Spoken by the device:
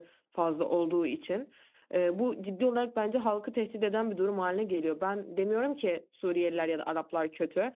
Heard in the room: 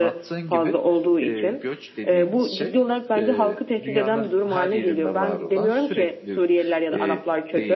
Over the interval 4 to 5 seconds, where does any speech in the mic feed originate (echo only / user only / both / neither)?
both